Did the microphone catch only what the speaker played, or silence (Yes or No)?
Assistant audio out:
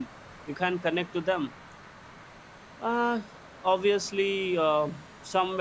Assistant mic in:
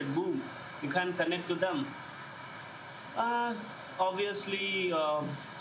Yes